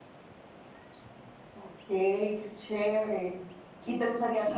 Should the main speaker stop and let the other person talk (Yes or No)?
No